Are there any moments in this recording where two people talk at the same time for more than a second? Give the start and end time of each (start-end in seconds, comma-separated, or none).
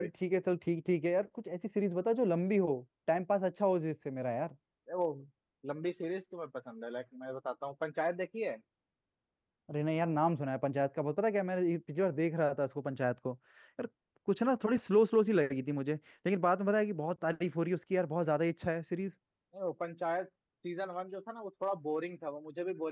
none